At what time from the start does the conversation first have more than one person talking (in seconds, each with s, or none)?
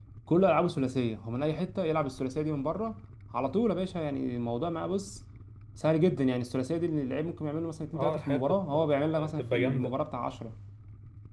7.9 s